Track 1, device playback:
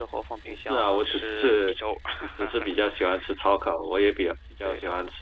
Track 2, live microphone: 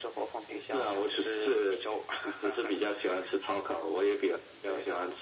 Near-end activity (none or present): none